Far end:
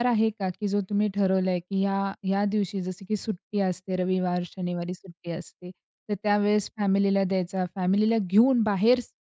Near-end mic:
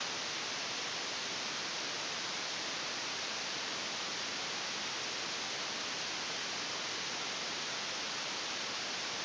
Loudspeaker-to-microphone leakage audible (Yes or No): No